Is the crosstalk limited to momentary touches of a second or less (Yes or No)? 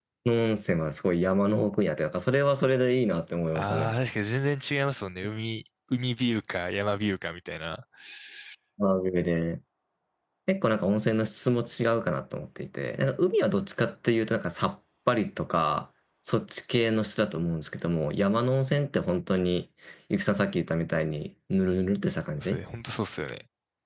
Yes